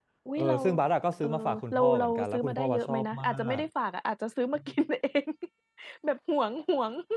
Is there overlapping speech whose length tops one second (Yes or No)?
Yes